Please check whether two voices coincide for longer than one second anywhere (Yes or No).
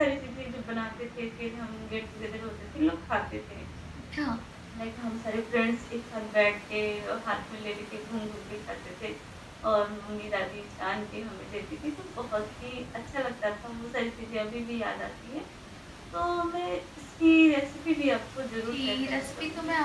Yes